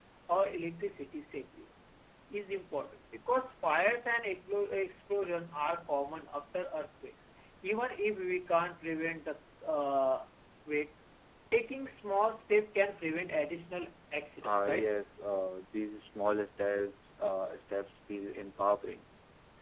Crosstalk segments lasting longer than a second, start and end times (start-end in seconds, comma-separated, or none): none